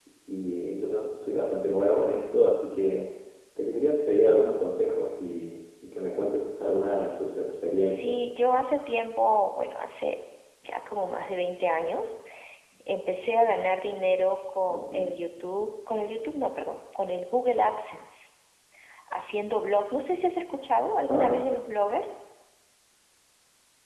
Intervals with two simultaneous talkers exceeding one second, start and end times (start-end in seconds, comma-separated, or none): none